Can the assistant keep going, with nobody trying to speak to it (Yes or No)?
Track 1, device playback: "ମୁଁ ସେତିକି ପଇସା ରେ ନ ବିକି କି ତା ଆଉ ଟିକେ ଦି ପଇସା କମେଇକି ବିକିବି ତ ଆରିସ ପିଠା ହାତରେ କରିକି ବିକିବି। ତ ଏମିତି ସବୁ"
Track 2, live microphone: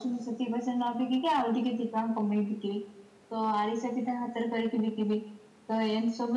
Yes